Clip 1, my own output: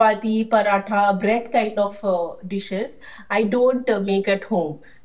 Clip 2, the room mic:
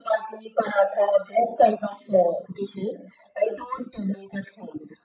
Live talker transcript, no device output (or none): none